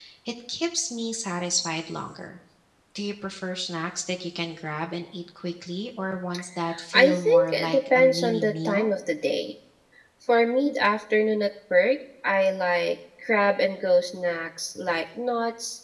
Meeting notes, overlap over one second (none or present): present